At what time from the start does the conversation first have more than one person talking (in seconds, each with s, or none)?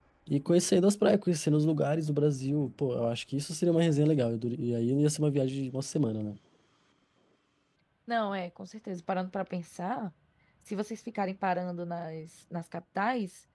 none